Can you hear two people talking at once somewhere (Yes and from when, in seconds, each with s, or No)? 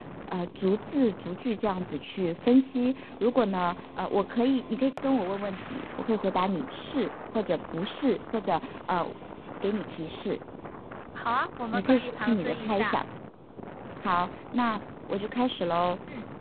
Yes, from 11.7 s